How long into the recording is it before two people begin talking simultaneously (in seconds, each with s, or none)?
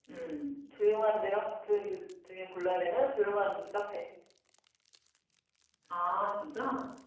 none